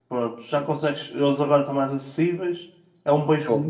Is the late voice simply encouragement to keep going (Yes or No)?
Yes